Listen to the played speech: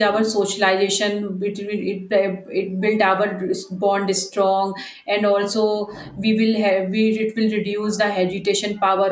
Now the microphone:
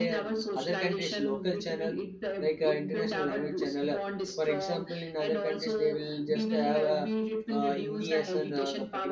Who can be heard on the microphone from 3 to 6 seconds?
both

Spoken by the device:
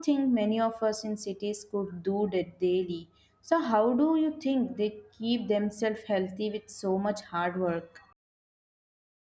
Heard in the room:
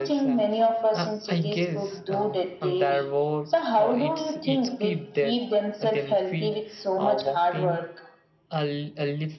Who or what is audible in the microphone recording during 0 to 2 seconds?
both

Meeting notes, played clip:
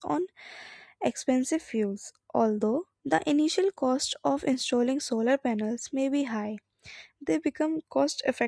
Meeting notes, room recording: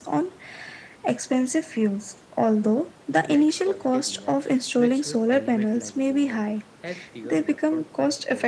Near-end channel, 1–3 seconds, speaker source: echo only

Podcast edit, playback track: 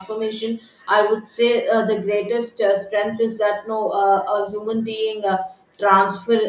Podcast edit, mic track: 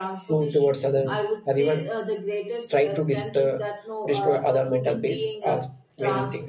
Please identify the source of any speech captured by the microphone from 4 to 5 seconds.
both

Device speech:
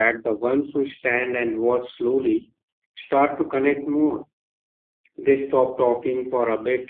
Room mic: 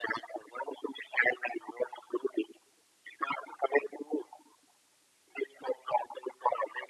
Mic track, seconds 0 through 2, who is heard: echo only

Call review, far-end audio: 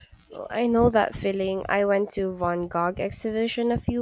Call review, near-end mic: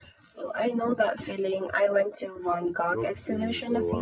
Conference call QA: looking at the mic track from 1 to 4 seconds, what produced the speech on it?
both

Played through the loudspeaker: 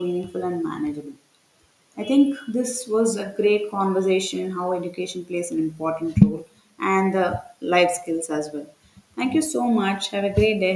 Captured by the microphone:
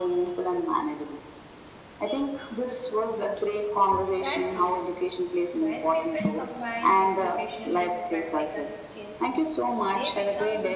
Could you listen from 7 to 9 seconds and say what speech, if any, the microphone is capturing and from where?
both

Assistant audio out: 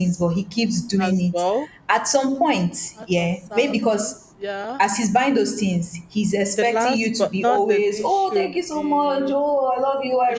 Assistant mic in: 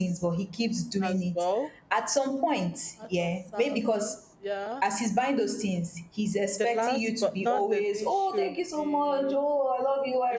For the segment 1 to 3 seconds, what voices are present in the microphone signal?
echo only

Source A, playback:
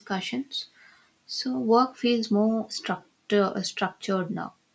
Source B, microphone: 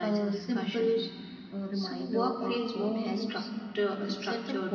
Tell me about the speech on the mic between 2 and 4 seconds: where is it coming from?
both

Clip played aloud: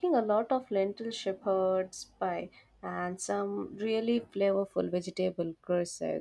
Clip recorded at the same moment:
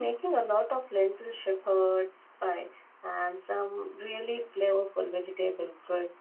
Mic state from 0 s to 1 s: echo only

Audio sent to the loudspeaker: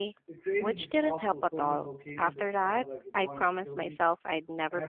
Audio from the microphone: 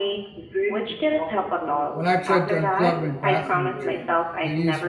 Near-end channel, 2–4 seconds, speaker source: both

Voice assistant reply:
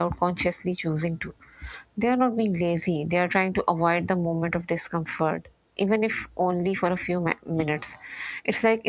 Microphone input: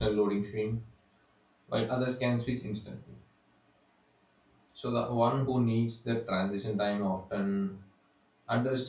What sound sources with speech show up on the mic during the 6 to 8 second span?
user only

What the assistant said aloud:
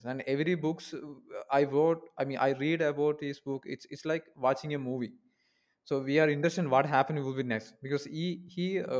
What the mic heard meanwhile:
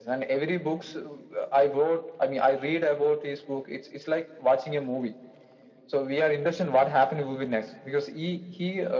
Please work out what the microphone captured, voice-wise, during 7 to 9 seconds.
echo only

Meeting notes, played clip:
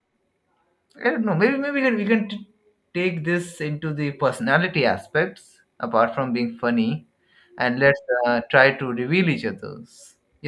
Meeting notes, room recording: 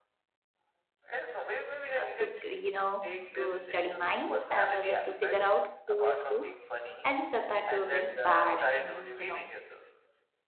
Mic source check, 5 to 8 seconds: both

